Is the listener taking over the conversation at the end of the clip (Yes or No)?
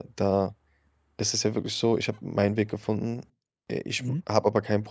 No